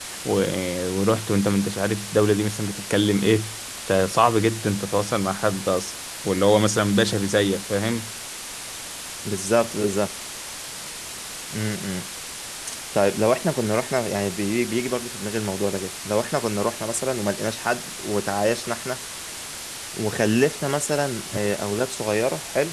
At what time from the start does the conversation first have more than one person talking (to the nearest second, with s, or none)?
none